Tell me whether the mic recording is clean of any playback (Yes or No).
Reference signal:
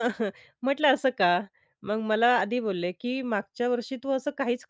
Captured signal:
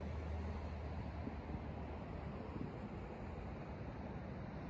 Yes